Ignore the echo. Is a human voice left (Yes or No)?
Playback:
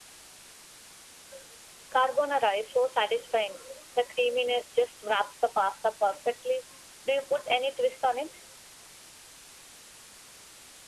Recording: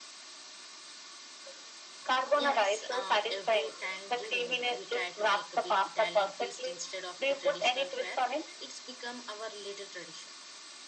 Yes